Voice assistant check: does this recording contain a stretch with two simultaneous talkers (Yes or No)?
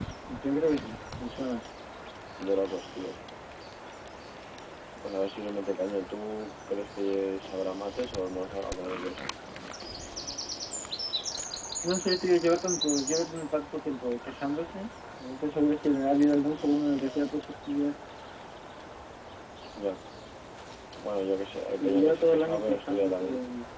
Yes